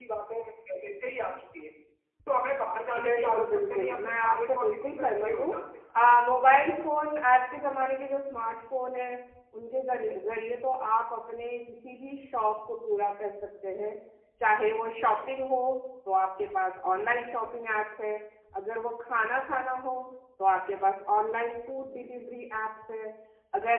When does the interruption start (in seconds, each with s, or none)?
3.0 s